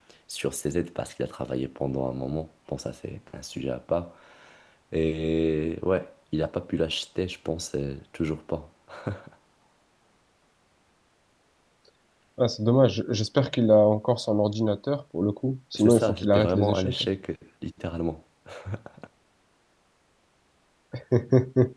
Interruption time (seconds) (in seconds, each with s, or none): 15.8 s